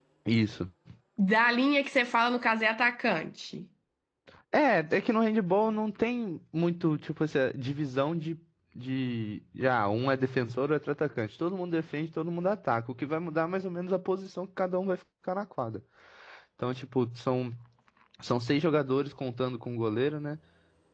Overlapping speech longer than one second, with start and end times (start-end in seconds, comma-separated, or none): none